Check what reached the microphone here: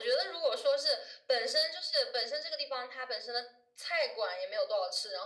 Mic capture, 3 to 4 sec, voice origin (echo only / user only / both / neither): echo only